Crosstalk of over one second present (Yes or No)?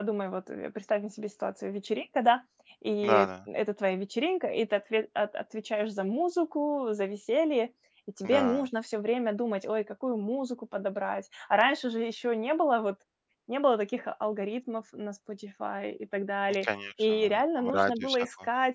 Yes